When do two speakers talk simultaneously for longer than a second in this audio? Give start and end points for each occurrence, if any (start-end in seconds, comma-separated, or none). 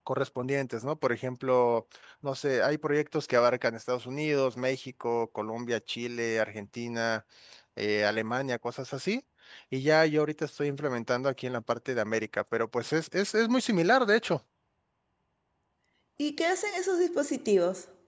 none